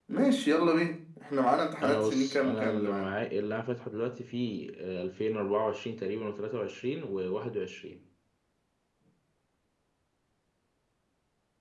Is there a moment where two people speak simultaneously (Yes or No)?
Yes